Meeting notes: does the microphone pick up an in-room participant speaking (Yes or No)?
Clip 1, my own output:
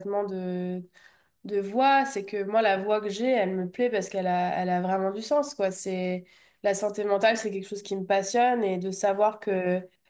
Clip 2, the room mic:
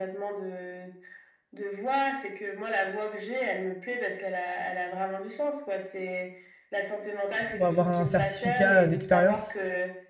Yes